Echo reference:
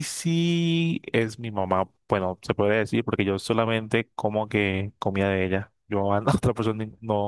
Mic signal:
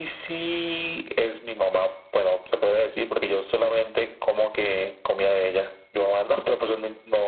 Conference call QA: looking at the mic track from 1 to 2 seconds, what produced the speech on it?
echo only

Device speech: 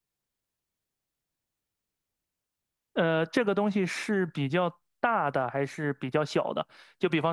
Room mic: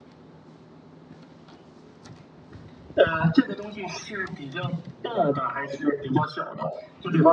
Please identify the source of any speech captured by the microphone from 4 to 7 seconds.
echo only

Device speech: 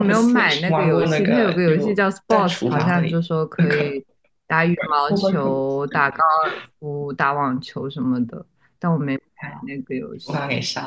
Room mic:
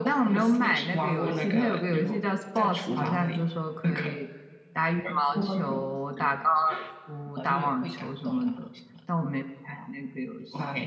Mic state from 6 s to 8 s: both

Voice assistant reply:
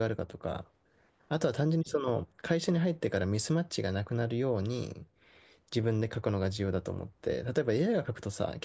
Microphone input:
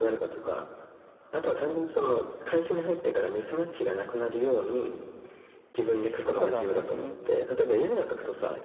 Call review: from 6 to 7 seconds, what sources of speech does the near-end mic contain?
both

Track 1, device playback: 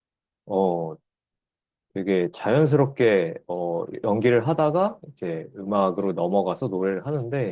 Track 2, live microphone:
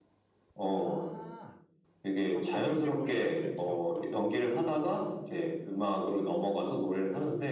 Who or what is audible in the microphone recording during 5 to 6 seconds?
echo only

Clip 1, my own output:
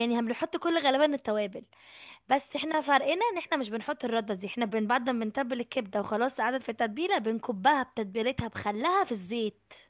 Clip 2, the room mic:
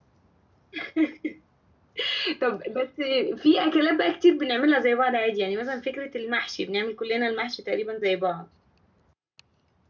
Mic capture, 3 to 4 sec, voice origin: user only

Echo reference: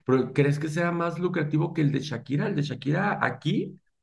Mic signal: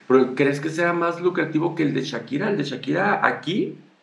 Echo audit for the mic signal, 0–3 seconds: echo only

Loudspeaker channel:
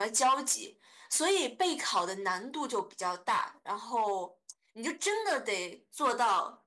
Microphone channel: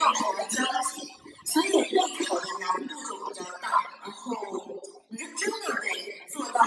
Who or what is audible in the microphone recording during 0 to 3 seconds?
echo only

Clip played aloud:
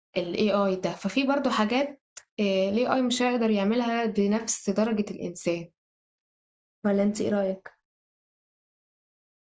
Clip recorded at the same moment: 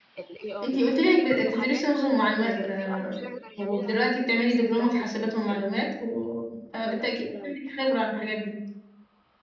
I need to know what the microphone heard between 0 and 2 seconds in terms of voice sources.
both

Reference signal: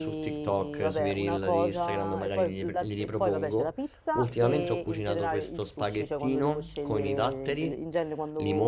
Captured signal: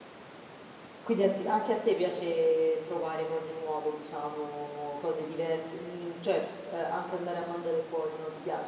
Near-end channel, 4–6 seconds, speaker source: user only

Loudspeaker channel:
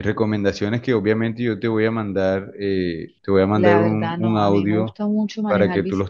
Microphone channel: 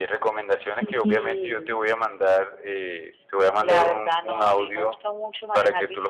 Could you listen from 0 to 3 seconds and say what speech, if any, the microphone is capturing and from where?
both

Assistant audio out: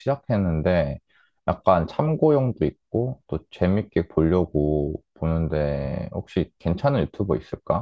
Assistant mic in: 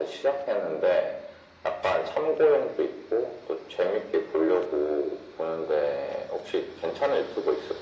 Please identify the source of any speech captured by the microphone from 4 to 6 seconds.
echo only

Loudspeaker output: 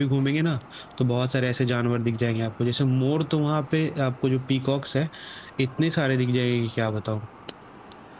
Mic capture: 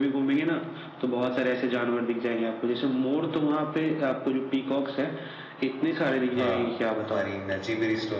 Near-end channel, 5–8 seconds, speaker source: both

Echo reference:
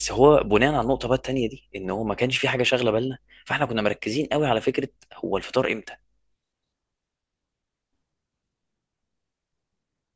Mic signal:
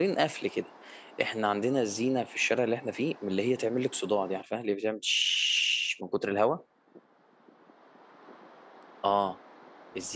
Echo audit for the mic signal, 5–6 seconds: user only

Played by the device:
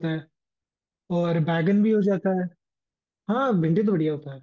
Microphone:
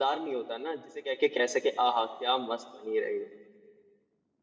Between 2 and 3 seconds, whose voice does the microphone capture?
user only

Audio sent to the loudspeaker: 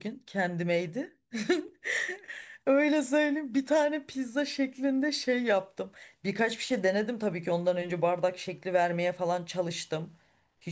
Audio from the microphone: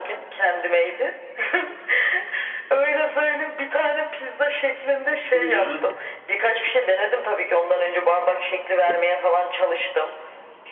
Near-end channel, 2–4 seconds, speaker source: echo only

